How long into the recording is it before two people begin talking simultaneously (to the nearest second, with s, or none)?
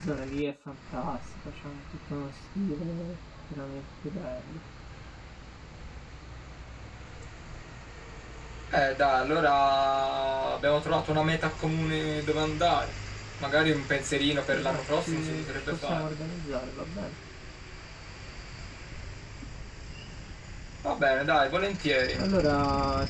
15 s